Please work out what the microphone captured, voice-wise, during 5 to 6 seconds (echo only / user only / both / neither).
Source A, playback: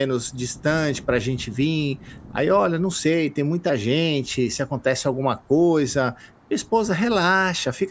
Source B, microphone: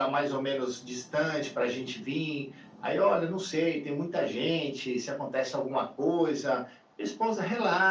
echo only